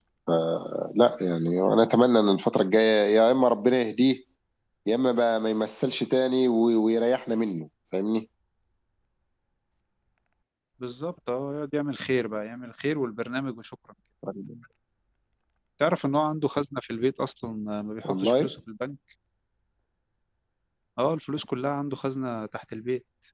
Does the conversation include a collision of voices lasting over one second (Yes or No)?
No